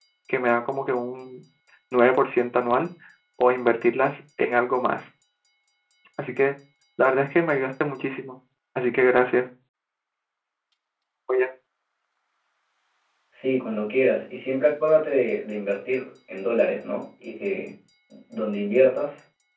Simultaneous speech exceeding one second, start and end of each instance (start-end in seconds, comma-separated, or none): none